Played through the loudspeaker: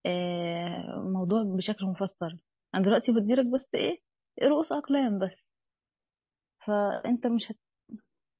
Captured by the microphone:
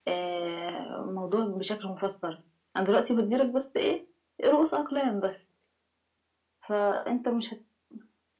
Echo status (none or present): present